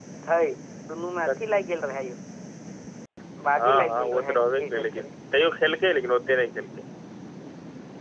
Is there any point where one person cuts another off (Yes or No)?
Yes